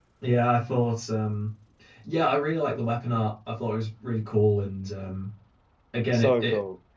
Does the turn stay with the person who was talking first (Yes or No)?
Yes